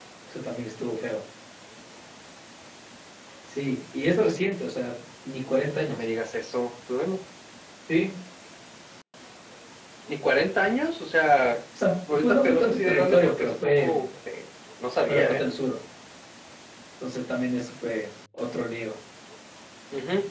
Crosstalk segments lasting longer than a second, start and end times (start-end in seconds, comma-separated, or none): 12.1-14.1